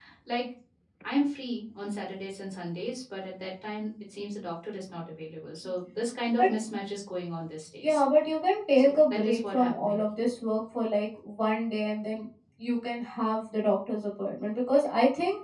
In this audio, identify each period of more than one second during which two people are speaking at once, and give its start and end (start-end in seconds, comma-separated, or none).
8.8-10.0